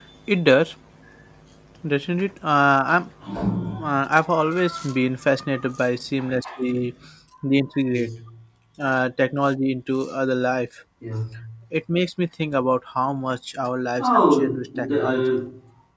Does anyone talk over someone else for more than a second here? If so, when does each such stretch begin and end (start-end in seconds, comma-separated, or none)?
14.0-15.4